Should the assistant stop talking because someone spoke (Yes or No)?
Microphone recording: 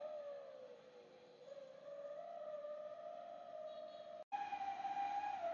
No